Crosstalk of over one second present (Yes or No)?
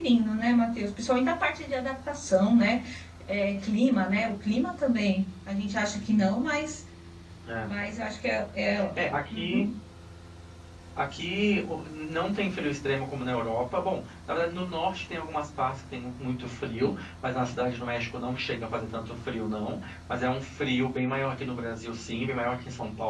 No